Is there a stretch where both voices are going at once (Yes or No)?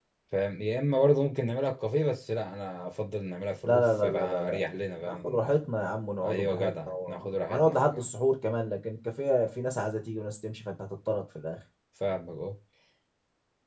Yes